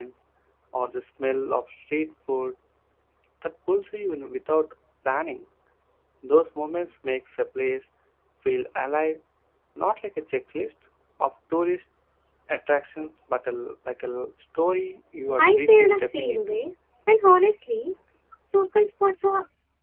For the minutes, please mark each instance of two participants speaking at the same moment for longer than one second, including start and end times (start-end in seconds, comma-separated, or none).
15.4-16.6